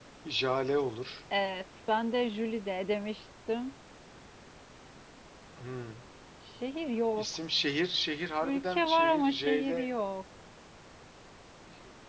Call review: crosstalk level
present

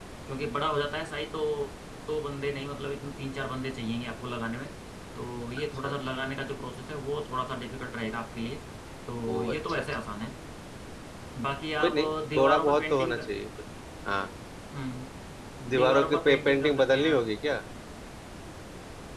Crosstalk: present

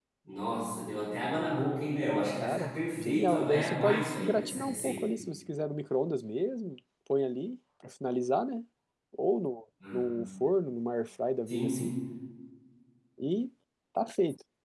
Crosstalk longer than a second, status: present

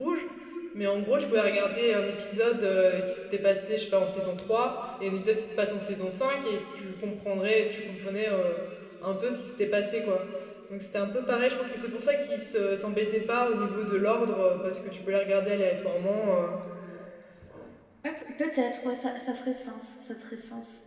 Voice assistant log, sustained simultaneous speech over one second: none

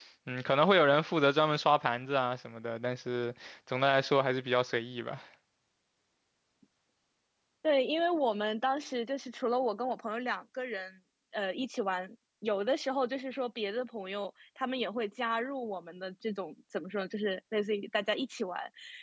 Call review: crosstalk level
none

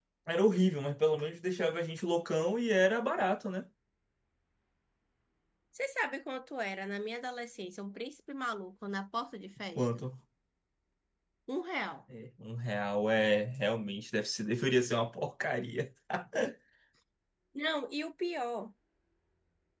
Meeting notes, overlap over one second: none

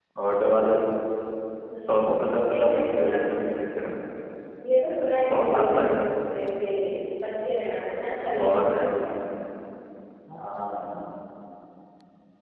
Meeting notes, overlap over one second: present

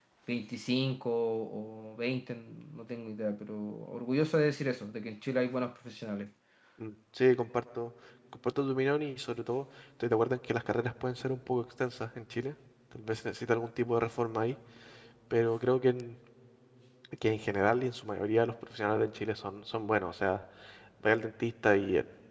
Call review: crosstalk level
none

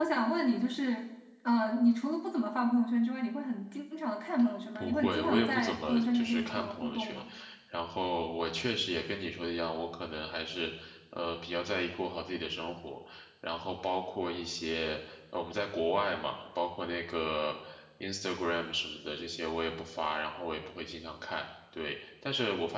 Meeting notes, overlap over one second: present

